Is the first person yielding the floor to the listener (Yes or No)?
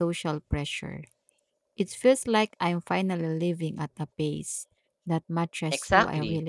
Yes